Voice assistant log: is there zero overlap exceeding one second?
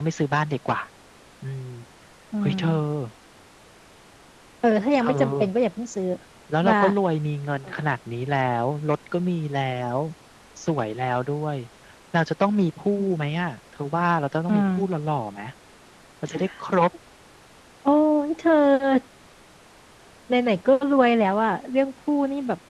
Yes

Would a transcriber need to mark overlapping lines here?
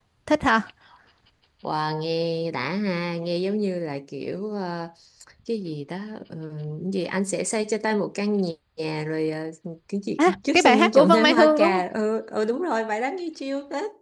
Yes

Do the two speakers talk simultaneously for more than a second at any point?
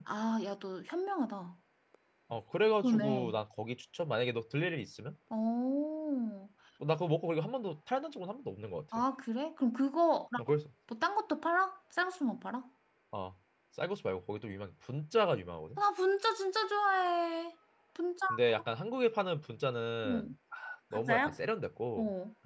No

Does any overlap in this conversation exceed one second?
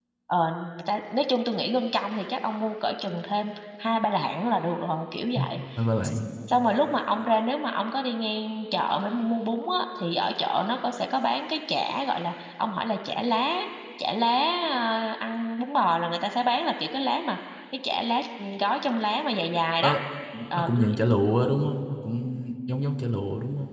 No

